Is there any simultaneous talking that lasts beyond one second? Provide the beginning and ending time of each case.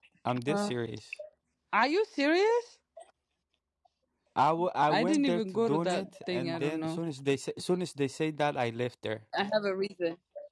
5.0-7.0

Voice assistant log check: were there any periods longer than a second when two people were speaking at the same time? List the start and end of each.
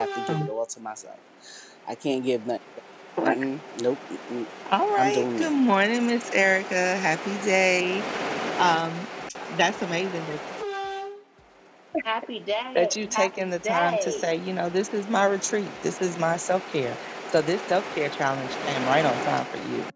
12.8-14.3

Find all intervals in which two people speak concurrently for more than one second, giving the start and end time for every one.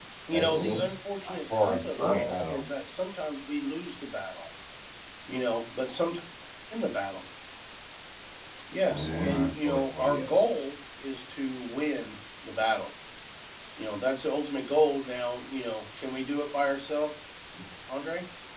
1.2-2.6, 8.9-10.4

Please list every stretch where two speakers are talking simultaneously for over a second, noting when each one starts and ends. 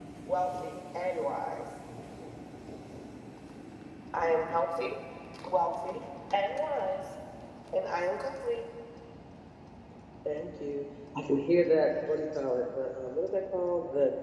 none

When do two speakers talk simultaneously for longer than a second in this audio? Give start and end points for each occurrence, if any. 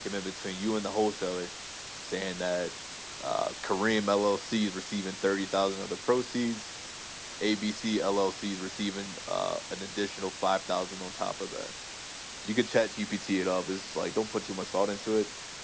none

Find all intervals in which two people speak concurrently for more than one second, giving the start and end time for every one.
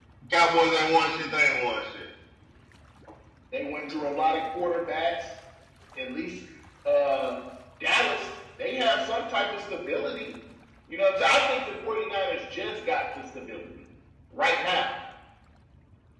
none

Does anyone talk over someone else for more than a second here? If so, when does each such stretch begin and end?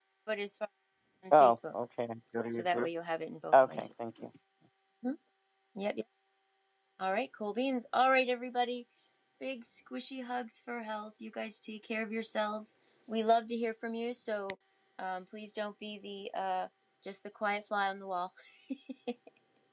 none

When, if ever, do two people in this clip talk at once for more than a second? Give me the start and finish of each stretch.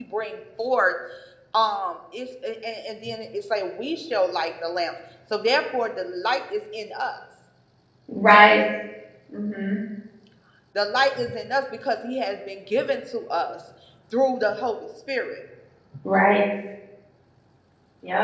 none

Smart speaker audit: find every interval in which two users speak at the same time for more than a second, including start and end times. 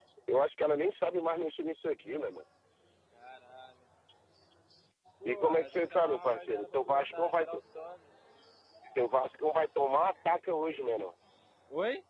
5.2-7.6

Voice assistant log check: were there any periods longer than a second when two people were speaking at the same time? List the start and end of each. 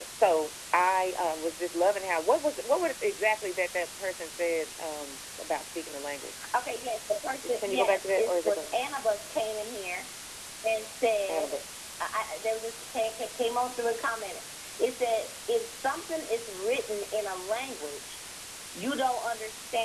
7.5-8.8

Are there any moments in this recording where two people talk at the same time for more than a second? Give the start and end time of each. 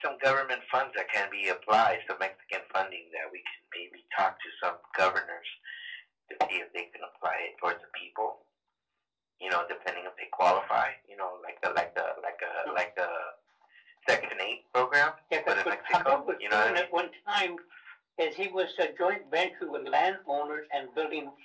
15.5-16.9

